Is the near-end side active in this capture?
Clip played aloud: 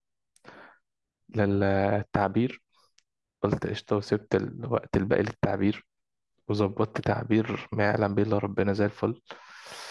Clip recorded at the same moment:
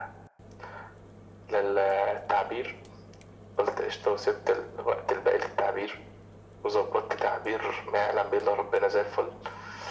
No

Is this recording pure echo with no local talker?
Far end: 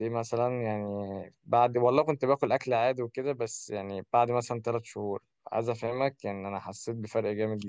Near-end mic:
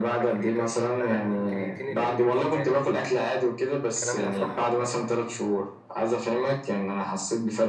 No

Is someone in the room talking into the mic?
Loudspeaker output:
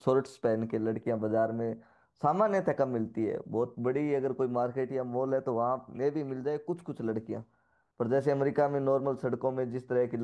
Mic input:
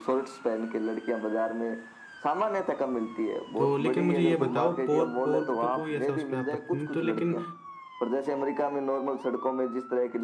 Yes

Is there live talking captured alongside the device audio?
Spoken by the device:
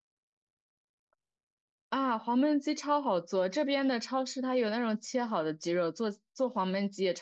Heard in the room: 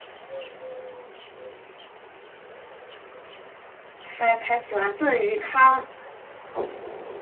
Yes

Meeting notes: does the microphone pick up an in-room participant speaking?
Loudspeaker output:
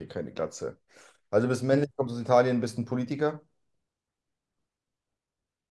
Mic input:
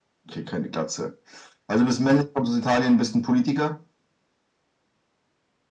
No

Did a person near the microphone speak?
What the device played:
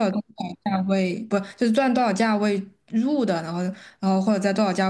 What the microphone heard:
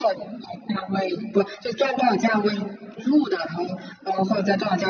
No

